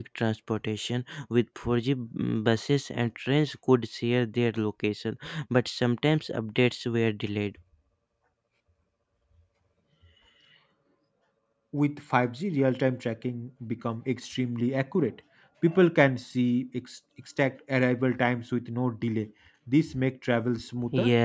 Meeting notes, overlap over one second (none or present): none